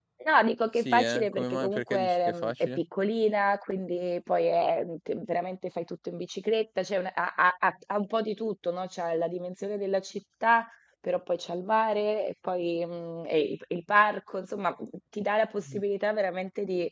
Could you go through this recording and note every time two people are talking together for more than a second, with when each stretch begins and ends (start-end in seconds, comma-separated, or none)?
0.8-2.8